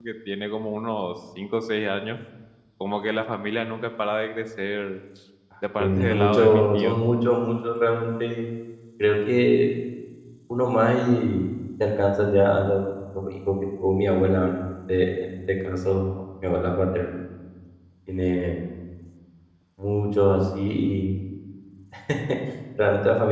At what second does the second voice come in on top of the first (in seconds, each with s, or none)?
5.8 s